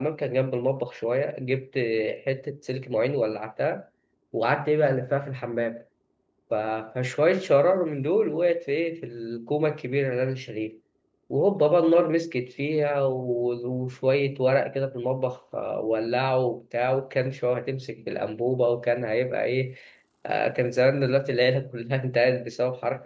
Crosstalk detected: No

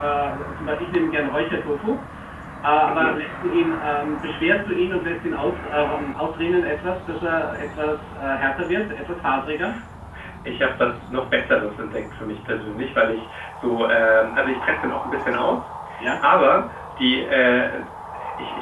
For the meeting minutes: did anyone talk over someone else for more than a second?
No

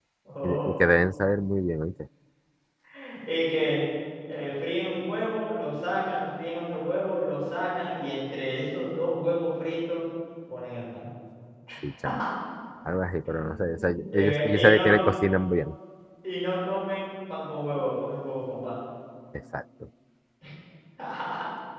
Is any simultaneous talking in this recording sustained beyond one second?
Yes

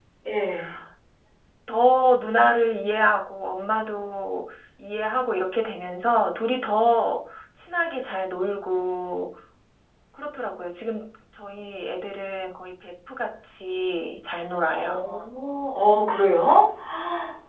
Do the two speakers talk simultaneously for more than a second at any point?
No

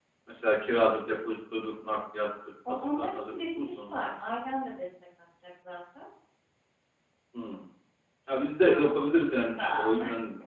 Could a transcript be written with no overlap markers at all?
No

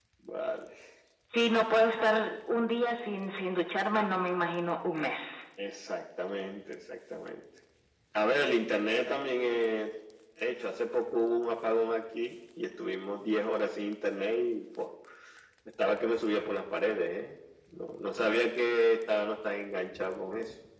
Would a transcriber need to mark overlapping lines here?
No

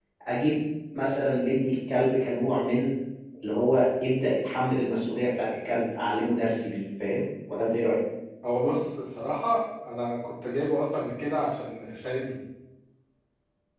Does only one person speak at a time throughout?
Yes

